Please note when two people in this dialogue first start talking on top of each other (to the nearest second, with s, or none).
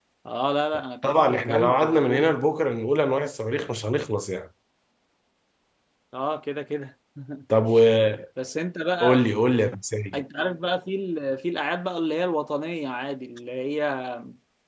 1 s